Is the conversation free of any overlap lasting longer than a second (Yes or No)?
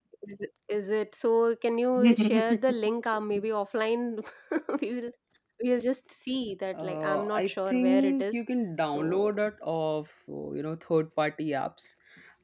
No